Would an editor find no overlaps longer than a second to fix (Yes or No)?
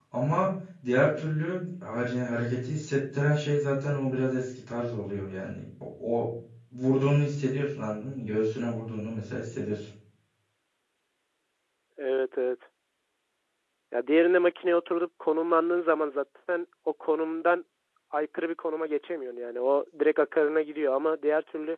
Yes